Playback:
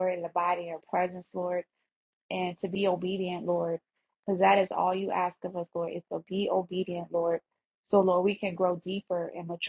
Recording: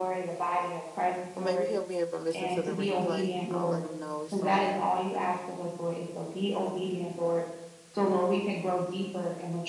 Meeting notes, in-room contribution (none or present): present